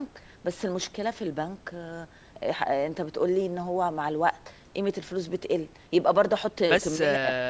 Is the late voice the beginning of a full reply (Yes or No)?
Yes